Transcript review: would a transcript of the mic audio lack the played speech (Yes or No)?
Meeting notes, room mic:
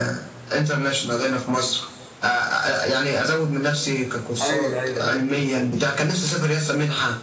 No